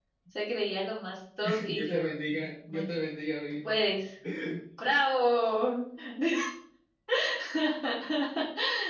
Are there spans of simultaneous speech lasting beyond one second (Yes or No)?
Yes